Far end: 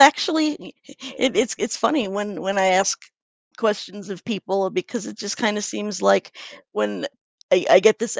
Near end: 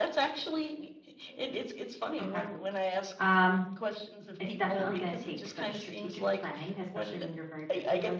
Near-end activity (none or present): present